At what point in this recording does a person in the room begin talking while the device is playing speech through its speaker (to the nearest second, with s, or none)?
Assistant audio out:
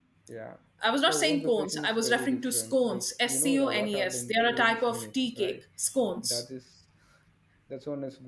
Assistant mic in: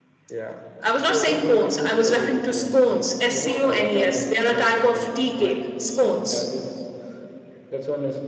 none